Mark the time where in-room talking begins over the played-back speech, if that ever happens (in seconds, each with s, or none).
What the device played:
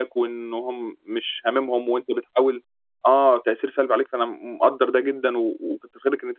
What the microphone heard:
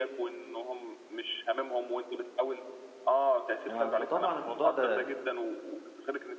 3.6 s